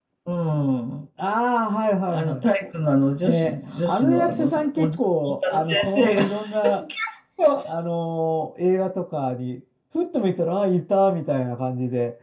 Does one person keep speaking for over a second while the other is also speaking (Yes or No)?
Yes